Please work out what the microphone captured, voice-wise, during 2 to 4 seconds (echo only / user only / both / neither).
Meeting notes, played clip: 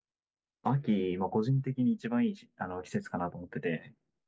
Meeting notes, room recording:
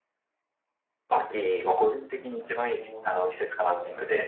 both